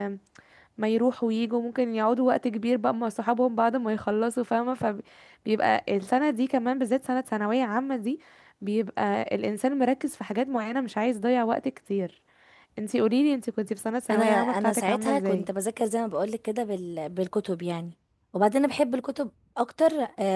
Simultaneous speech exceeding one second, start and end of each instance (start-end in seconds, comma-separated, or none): 14.1-15.5